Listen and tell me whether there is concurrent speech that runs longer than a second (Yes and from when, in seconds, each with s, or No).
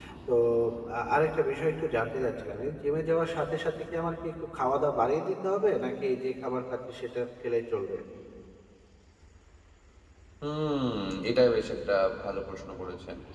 No